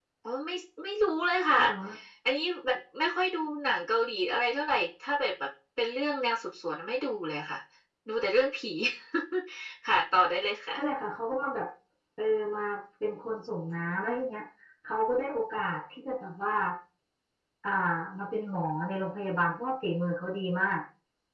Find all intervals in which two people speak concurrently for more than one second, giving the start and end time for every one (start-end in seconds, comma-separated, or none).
none